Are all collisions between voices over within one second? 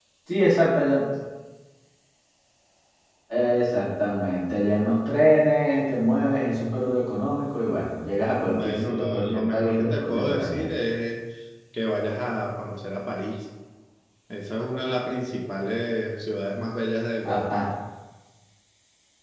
No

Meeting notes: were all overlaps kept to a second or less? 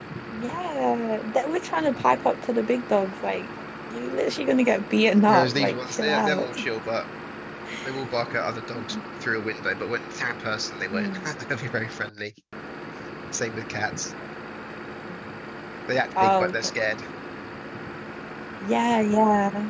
No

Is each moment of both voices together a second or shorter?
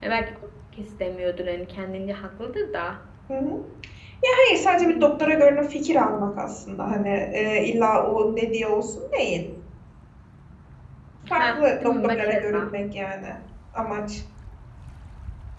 No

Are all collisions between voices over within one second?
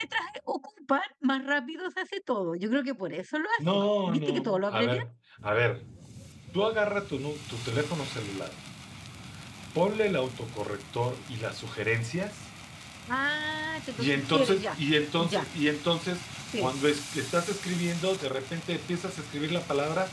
No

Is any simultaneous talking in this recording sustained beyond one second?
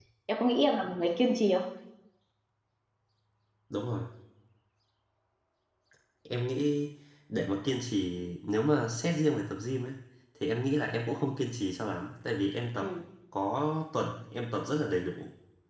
No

